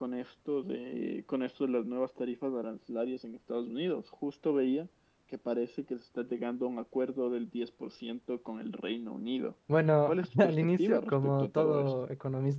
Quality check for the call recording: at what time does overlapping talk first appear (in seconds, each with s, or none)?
10.0 s